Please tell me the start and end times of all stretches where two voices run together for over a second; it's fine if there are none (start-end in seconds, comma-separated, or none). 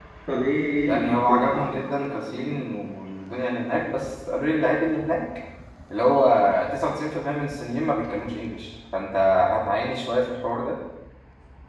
0.8-2.7